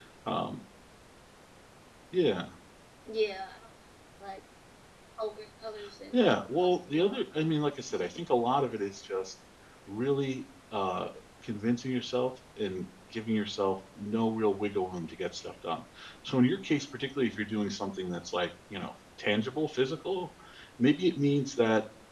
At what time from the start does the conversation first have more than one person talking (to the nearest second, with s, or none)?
6 s